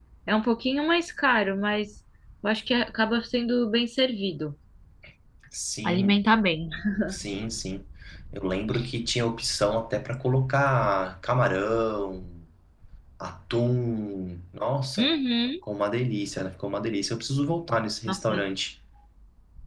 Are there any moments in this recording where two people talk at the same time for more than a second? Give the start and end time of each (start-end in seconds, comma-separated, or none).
none